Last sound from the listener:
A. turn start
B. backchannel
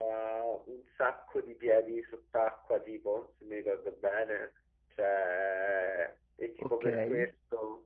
B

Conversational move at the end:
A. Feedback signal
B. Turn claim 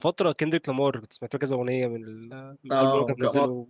B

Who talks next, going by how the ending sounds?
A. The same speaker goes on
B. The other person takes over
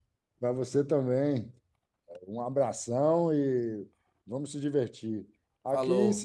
A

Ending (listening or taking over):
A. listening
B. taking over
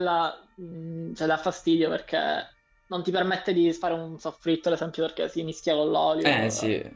B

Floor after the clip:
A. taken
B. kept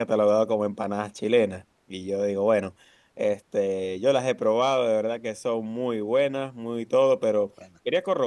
B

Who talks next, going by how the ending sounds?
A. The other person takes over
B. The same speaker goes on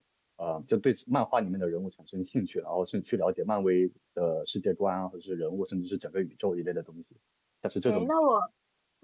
A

